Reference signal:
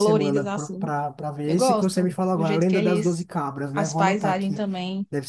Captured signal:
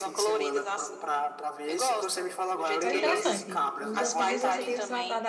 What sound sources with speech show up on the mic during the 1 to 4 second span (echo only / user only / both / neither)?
both